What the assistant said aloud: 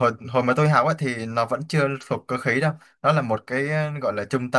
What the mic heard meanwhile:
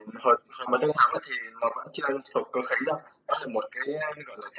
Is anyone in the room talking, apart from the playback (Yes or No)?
No